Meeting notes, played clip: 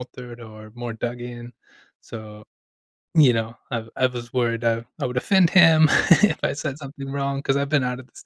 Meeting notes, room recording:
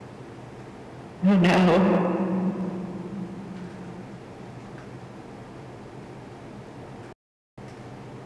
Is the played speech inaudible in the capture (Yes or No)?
Yes